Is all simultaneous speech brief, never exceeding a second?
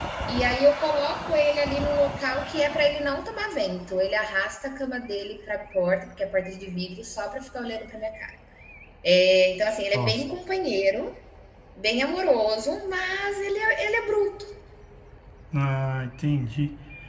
Yes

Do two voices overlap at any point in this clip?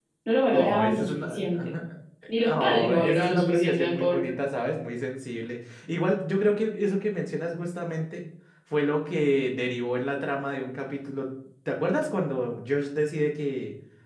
Yes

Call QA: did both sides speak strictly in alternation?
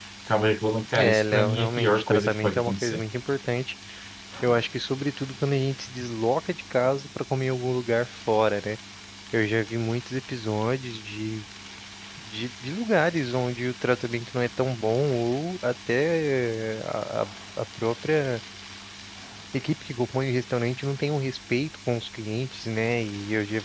No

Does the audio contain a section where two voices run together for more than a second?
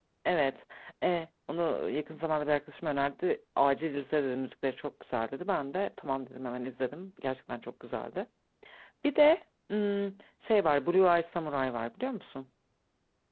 No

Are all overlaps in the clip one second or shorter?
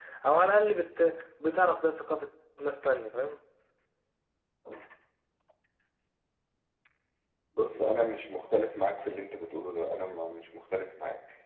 Yes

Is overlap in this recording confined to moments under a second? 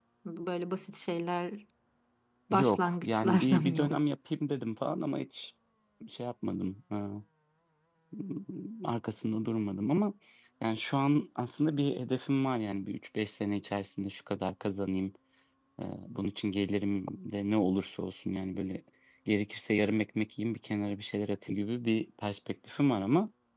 No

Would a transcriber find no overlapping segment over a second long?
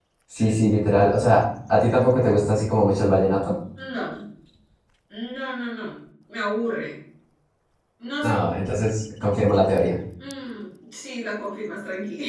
Yes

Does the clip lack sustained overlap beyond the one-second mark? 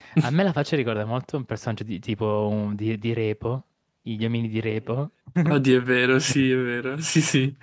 Yes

